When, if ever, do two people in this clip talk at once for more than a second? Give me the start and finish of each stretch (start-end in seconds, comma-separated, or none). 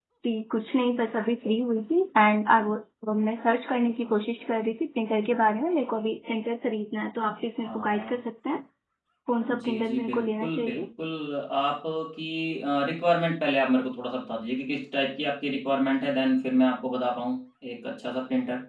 9.6-10.9